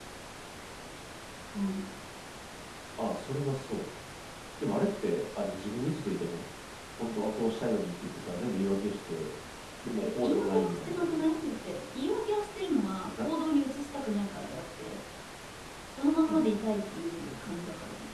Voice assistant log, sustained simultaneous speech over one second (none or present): present